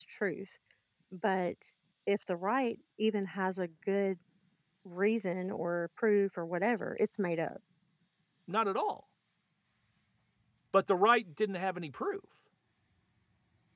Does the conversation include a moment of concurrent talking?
No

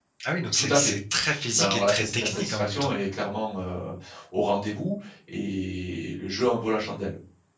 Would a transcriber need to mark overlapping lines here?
Yes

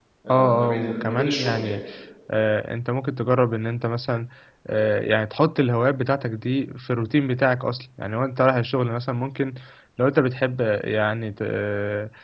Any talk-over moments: Yes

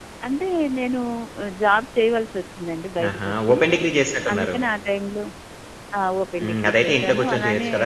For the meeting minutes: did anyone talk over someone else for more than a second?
Yes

